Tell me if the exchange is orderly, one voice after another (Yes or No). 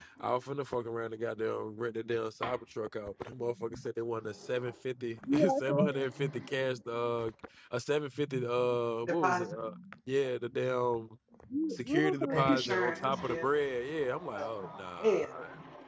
No